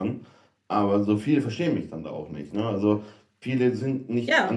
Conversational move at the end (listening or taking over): listening